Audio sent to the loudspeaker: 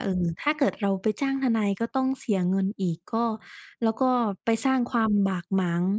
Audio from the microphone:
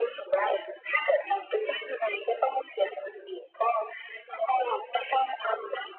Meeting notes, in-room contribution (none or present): none